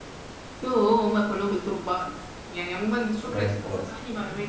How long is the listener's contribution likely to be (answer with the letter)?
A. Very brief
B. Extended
A